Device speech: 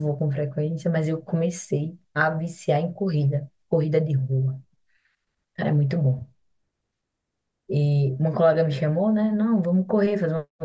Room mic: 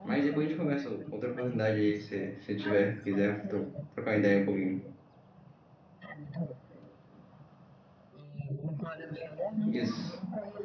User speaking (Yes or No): Yes